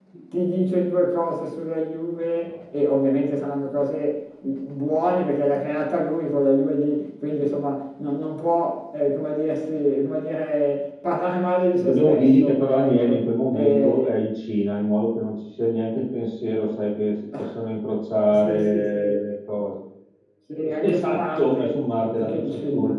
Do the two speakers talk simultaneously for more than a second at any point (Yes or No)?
Yes